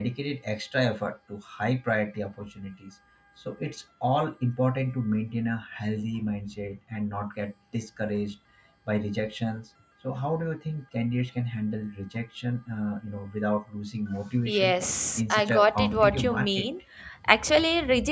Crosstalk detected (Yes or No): Yes